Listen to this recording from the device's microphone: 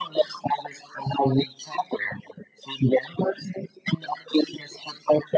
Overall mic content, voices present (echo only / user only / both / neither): echo only